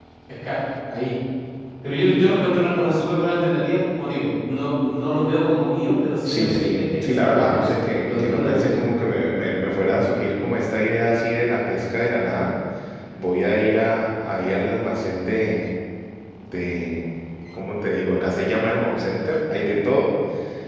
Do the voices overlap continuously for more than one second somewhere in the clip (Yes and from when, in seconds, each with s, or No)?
Yes, from 6.2 s